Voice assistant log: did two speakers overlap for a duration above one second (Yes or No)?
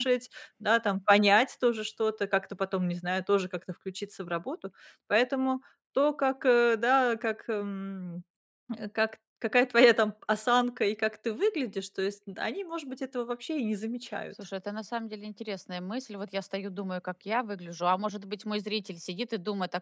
No